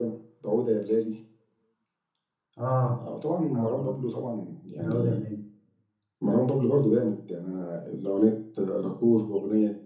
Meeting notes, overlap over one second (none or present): none